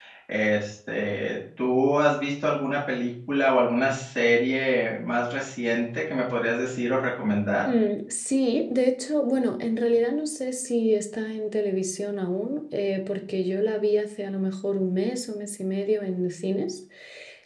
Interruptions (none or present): none